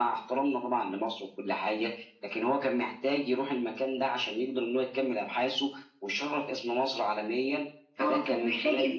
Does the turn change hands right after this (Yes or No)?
Yes